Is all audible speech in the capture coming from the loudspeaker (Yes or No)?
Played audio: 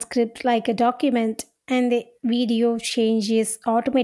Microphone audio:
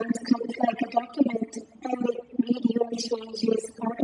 Yes